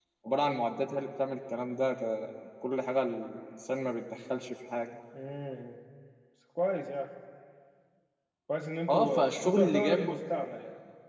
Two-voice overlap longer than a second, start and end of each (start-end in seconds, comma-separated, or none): 8.9-10.2